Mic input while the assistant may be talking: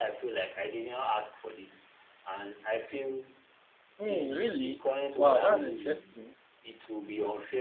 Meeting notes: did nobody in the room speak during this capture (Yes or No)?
No